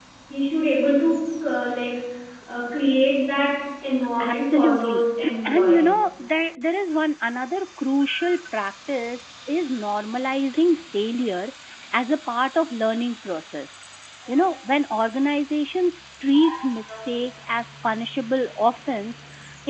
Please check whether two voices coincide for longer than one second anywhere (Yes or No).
Yes